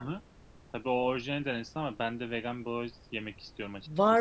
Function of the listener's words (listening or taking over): taking over